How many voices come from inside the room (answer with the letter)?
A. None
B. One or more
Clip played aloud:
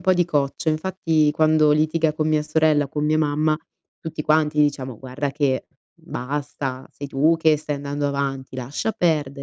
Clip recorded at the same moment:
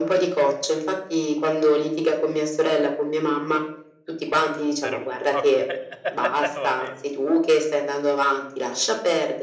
B